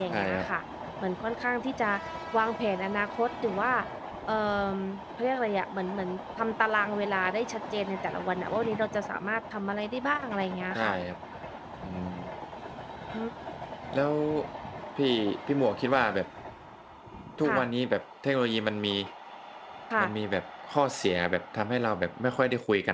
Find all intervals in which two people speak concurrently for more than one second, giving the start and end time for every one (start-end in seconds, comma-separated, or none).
none